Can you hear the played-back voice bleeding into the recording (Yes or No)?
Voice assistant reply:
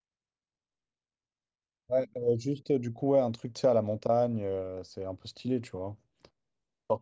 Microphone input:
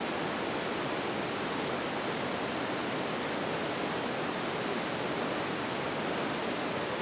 No